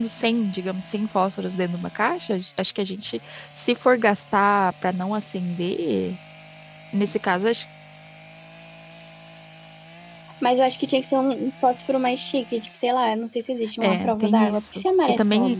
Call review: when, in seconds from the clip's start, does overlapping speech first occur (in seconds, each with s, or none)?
13.8 s